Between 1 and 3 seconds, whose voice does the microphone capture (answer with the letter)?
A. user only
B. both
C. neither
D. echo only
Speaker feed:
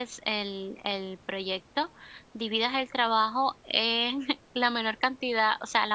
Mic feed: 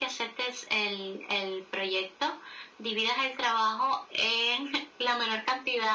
D